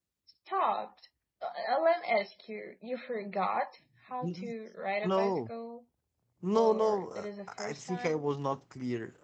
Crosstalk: present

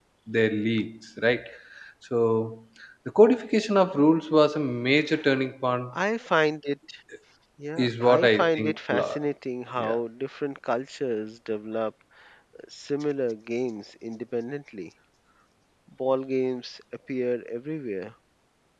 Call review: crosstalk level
present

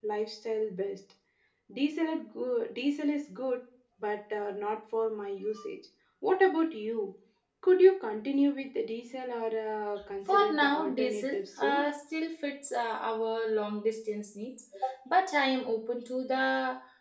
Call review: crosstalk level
present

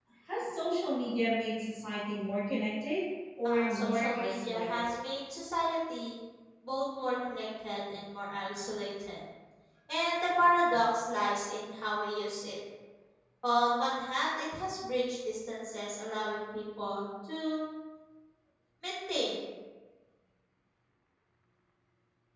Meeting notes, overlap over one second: present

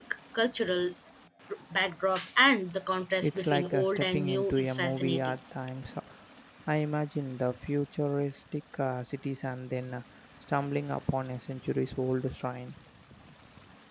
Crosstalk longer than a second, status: present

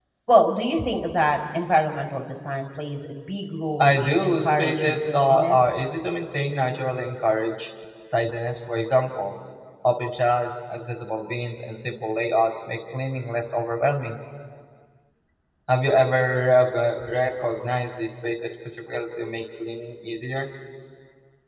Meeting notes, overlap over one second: present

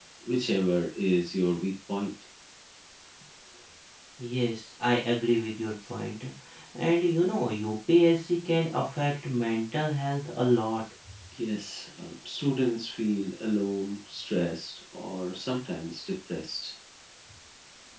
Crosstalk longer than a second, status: none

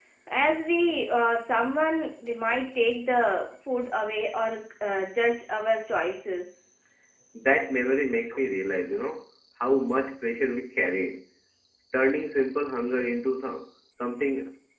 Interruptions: none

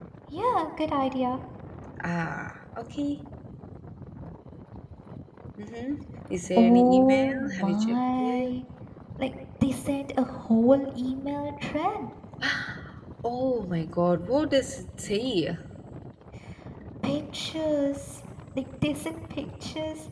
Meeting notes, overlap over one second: present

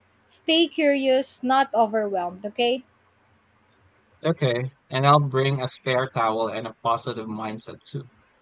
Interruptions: none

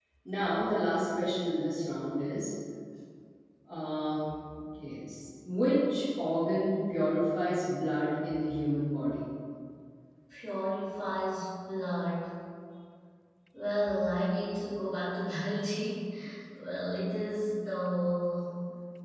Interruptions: none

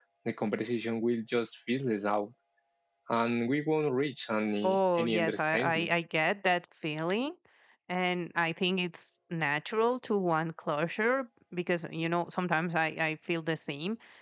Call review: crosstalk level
present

